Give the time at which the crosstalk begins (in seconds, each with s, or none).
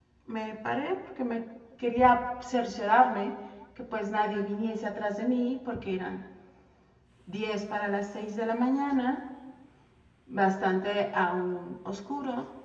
none